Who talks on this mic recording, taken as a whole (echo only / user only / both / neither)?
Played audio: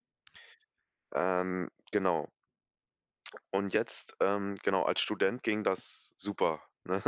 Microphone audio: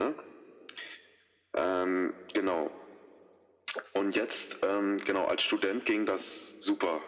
echo only